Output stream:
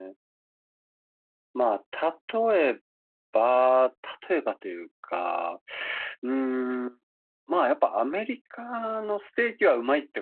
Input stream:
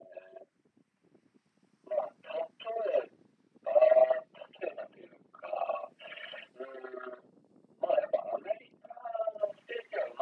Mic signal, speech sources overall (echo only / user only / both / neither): echo only